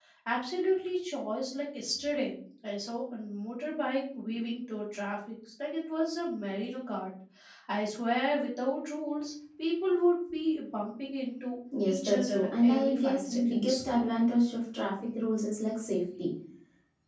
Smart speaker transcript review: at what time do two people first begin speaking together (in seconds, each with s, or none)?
11.7 s